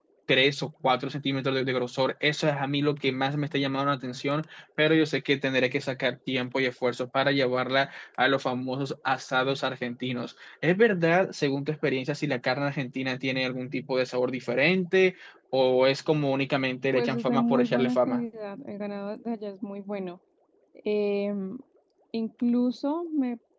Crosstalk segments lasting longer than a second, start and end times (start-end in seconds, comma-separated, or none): 16.9-18.2